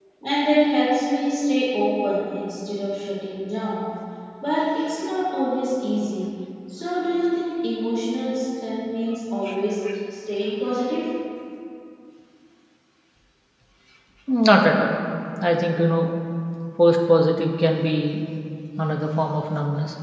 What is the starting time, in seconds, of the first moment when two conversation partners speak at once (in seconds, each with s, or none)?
none